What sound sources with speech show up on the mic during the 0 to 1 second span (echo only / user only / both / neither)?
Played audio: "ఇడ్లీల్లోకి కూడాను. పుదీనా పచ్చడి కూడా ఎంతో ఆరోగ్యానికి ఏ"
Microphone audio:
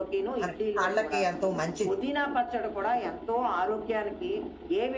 both